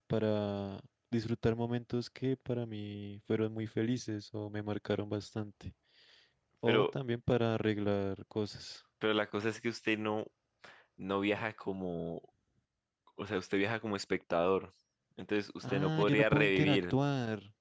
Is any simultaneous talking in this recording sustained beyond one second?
Yes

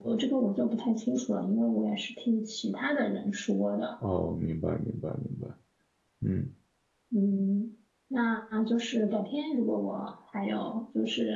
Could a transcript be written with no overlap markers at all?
Yes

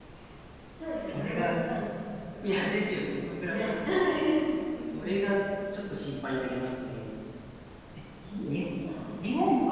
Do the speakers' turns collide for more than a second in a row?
Yes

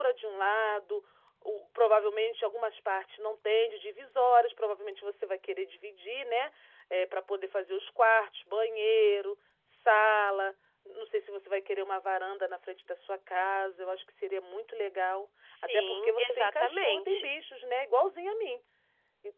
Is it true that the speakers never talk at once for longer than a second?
No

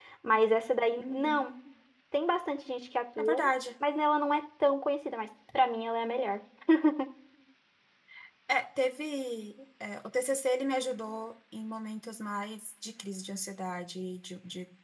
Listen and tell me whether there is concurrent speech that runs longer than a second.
No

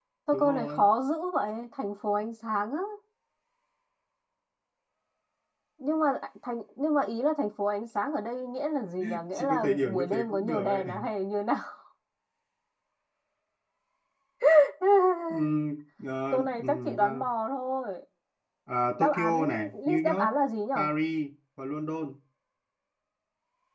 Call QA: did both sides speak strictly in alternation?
No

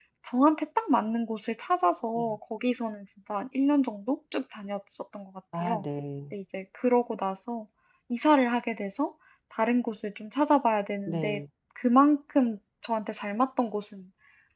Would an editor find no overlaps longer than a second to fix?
Yes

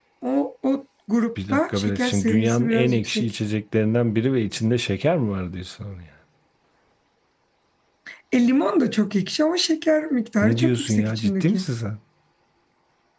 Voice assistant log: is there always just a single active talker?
No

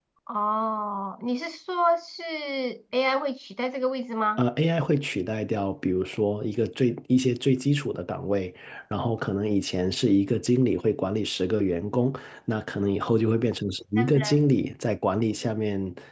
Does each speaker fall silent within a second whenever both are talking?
Yes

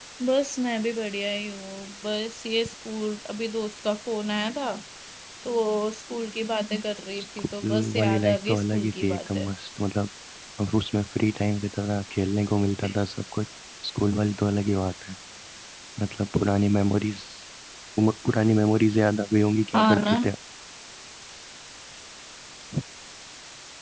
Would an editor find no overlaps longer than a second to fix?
No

